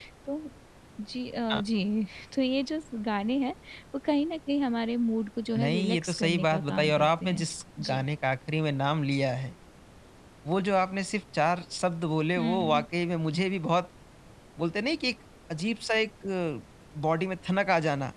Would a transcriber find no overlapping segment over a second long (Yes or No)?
No